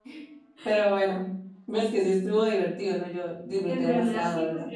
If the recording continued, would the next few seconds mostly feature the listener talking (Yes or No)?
Yes